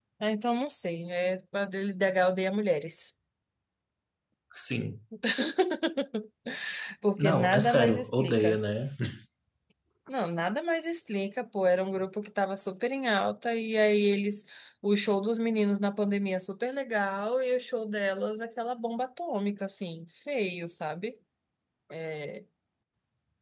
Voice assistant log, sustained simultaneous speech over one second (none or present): present